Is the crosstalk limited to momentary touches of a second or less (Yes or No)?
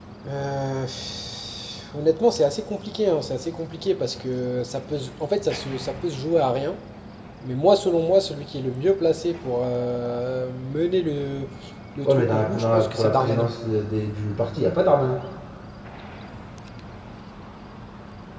No